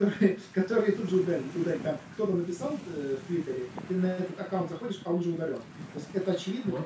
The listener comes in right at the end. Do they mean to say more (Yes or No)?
No